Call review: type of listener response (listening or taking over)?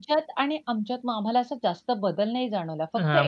taking over